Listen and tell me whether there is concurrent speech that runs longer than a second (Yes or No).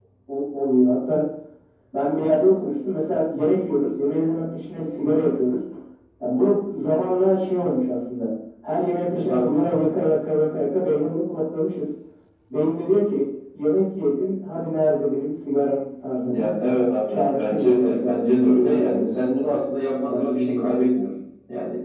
Yes